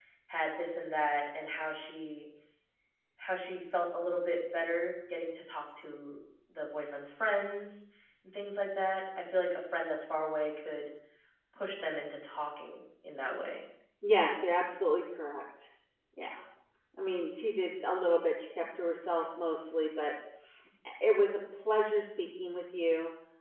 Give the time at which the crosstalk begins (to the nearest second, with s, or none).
none